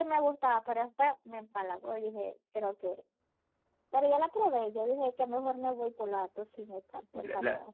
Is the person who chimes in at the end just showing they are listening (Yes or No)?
No